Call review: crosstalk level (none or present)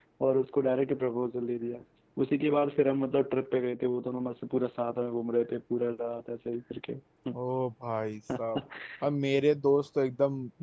none